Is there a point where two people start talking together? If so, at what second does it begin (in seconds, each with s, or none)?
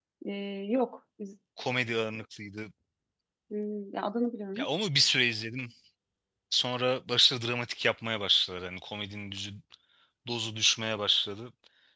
none